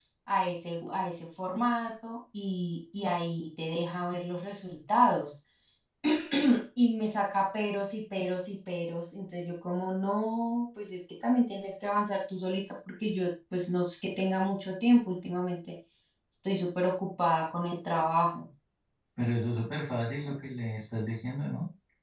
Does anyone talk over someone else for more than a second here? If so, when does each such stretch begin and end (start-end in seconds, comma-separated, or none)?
none